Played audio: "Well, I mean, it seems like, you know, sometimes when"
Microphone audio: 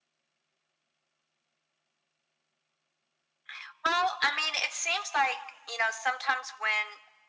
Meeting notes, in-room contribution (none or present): none